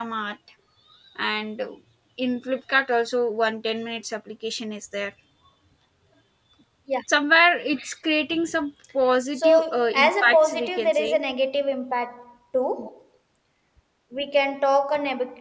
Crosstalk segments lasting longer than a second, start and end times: 9.3-11.2

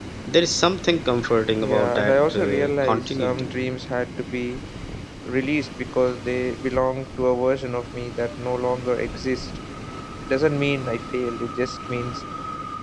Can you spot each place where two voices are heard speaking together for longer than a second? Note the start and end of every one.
1.6-3.5

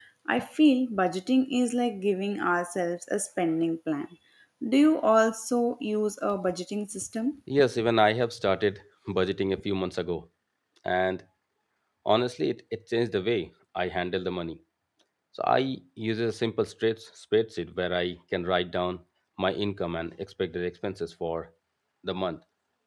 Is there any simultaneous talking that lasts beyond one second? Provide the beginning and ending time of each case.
none

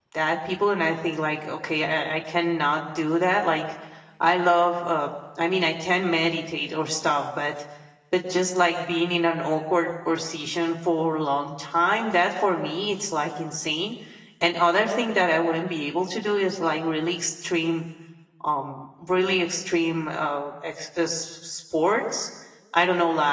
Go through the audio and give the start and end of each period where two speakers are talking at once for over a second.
none

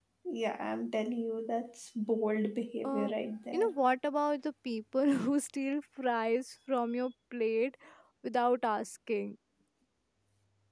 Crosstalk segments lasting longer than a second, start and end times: none

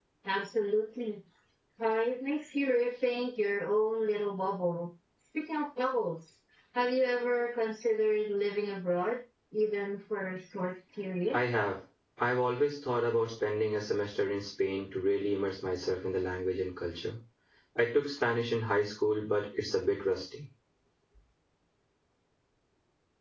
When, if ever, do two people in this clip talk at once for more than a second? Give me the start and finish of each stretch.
none

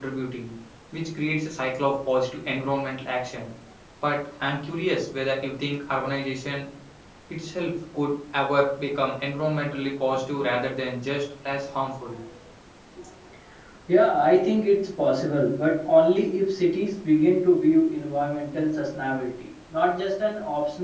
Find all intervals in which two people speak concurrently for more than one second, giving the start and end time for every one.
none

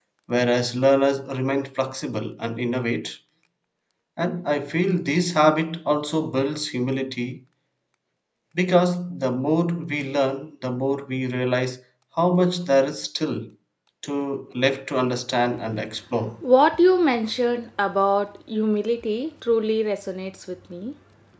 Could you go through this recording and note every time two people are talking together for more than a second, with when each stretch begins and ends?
none

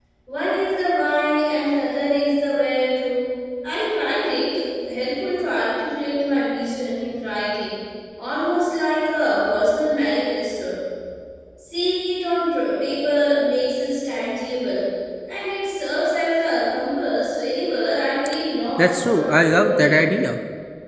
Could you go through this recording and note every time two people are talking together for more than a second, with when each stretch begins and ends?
18.8-20.1

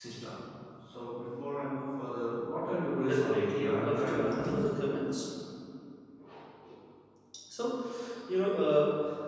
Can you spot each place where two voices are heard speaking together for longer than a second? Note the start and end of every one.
3.1-4.6

